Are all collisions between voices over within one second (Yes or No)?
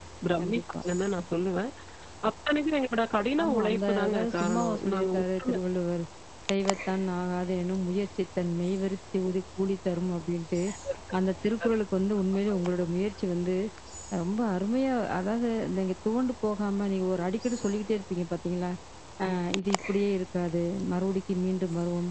No